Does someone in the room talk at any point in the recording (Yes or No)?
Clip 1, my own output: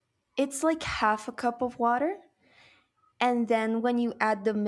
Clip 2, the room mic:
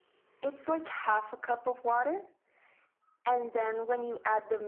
No